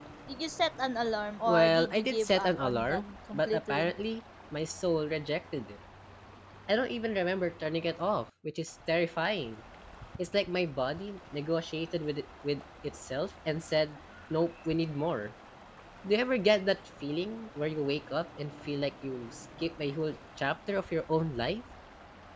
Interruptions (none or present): present